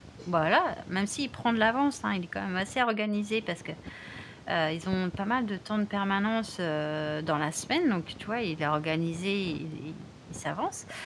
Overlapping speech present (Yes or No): No